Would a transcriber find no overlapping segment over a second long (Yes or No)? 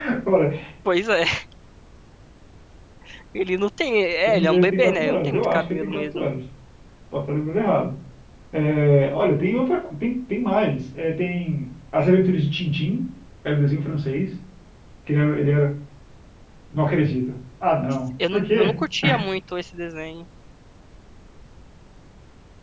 No